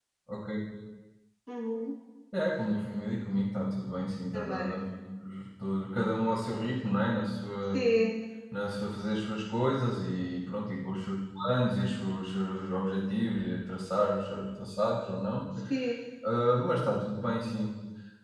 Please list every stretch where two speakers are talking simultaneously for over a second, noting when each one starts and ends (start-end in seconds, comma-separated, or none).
none